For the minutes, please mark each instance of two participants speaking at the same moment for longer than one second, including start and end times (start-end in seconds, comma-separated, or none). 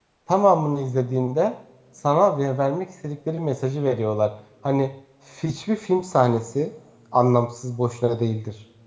none